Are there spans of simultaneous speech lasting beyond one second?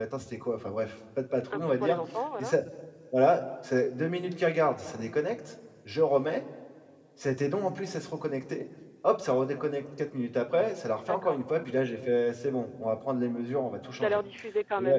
No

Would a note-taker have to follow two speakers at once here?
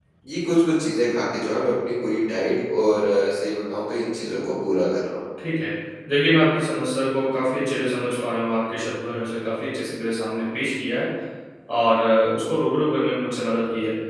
No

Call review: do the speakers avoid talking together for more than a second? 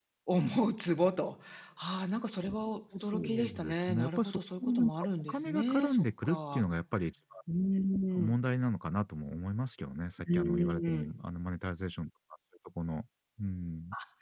No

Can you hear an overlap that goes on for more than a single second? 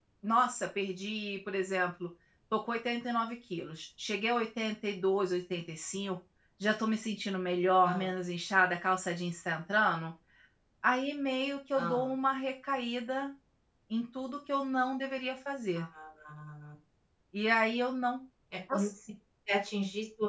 No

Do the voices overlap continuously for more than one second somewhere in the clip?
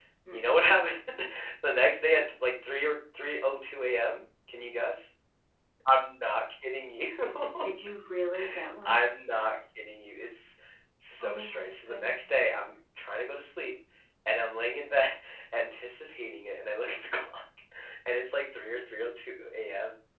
Yes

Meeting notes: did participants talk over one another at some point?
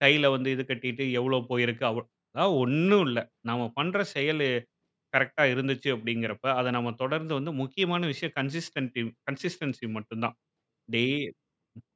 No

